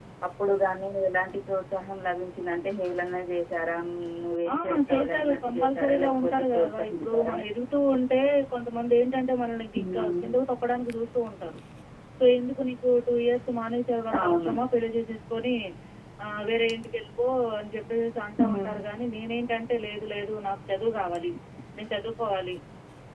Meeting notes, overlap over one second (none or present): present